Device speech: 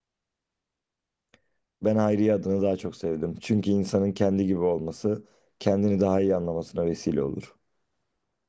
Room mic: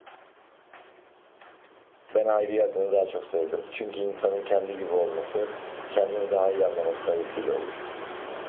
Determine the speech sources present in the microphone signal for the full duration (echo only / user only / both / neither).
echo only